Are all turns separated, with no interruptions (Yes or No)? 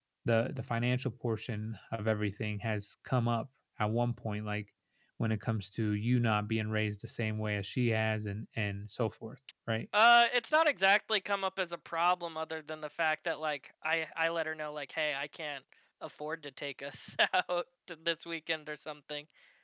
Yes